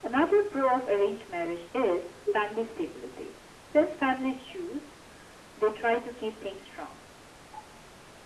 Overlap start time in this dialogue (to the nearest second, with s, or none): none